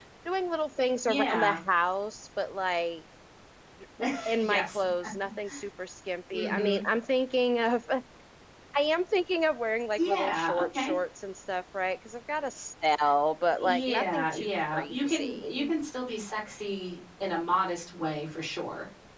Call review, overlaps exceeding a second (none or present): present